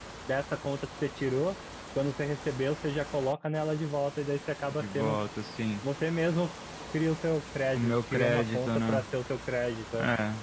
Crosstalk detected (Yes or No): Yes